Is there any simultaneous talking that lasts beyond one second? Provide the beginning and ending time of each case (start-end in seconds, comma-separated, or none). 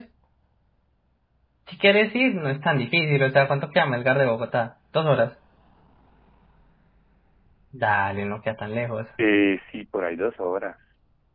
none